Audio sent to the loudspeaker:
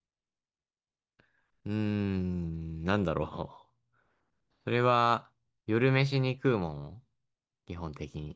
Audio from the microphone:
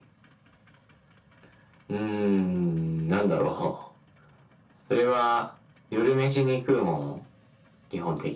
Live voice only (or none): none